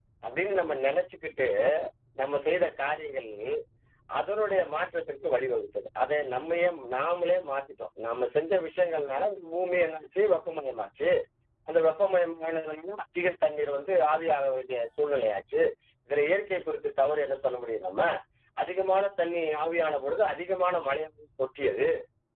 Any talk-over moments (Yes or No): No